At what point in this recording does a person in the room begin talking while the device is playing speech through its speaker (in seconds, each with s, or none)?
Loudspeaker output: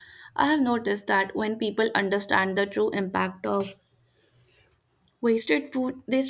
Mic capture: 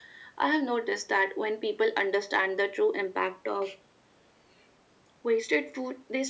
none